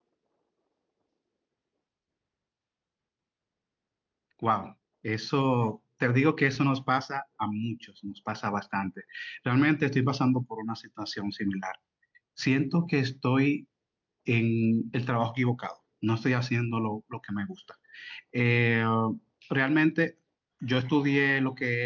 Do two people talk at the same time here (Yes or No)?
No